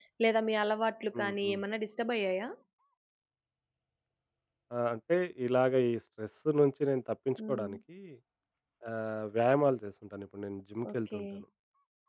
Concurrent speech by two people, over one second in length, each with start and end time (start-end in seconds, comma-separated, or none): none